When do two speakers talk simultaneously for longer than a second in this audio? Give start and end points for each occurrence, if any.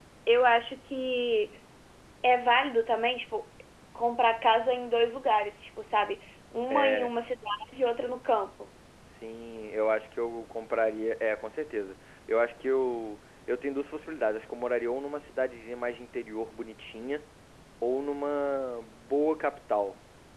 none

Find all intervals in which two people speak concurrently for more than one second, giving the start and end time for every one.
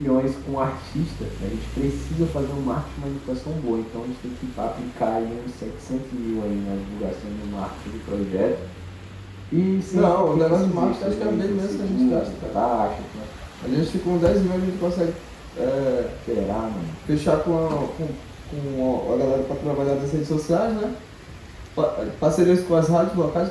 9.9-12.6

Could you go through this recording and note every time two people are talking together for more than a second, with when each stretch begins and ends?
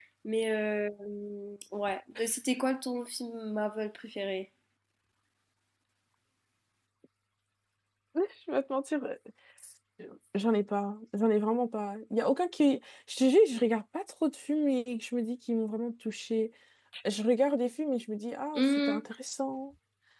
none

